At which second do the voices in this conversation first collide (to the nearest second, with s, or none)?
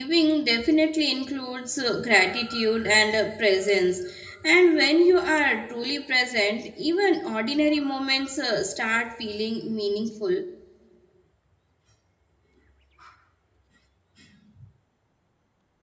none